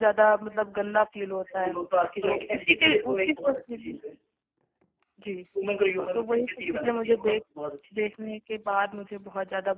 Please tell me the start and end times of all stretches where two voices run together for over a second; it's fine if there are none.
2.2-3.9, 6.0-7.3

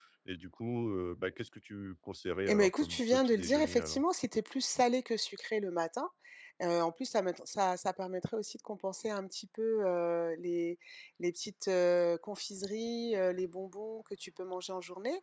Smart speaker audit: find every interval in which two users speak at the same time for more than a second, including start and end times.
2.5-4.0

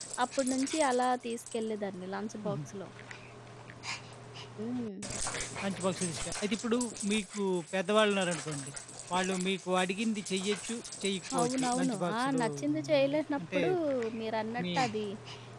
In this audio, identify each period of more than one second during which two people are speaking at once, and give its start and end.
11.4-13.6

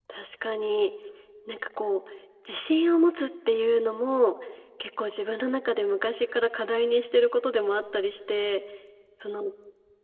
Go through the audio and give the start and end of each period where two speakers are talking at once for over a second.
none

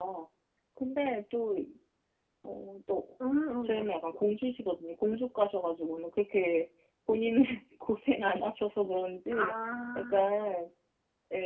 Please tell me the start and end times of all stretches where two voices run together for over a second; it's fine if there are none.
none

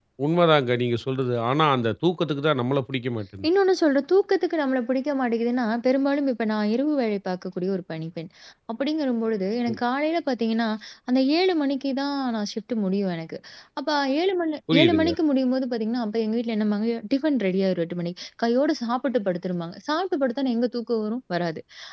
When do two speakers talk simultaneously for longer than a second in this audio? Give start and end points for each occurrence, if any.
none

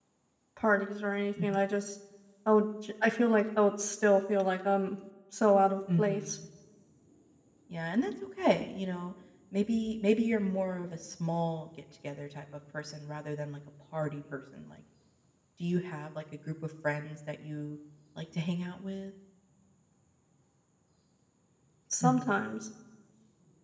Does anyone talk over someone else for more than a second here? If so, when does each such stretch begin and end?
none

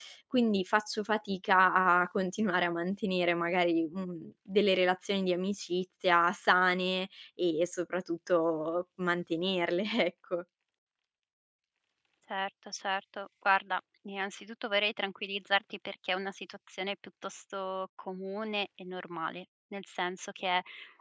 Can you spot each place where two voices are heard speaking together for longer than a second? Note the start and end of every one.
none

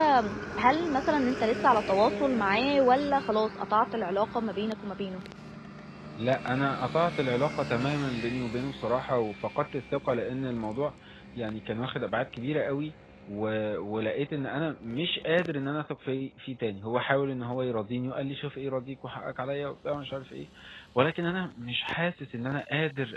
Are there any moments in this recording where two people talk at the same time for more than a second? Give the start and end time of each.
none

